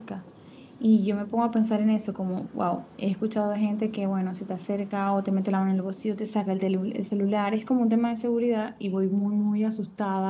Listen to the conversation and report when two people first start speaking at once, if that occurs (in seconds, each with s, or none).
none